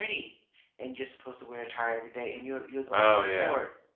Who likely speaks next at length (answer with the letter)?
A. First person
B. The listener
A